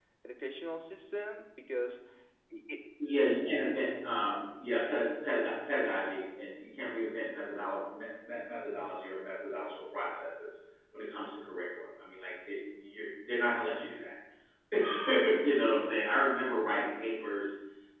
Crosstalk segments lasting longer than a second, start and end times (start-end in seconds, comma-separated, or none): none